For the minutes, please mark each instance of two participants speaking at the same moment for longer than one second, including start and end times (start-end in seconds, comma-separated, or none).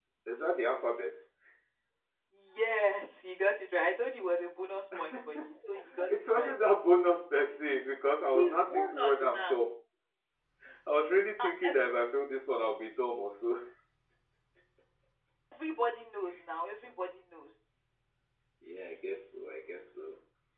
8.3-9.6